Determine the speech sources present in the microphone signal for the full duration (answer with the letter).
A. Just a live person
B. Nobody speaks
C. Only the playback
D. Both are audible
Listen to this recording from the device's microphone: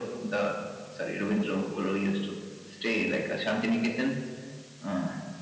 C